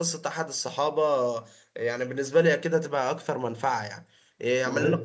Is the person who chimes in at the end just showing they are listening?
Yes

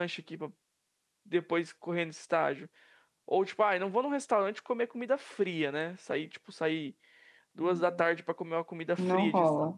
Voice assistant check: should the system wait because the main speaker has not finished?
Yes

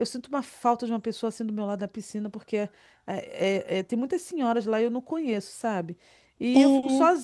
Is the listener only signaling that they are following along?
Yes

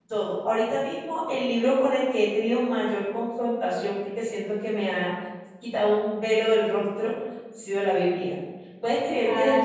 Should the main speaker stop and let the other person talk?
No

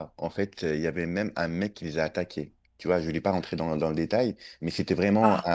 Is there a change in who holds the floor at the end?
No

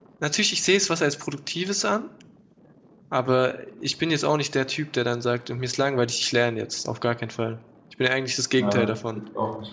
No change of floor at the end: No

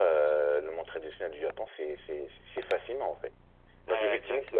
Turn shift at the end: No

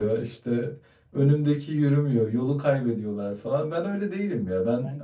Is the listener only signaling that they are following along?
No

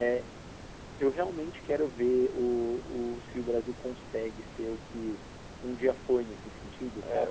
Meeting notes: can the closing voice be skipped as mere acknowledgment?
No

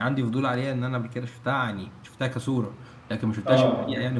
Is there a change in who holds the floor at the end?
No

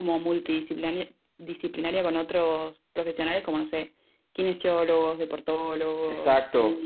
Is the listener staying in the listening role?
No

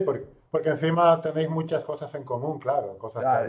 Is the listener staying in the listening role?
No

